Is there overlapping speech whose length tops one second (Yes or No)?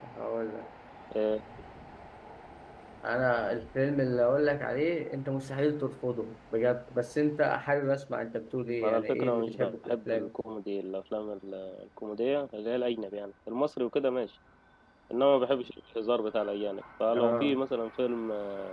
Yes